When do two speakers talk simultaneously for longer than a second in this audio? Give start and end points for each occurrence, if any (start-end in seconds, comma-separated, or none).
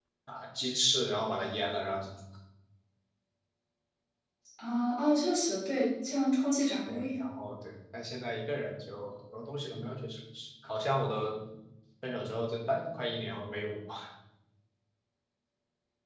none